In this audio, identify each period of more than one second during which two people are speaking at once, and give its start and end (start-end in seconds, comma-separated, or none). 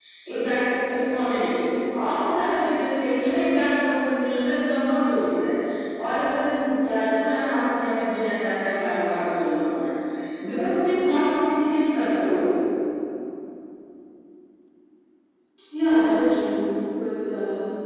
none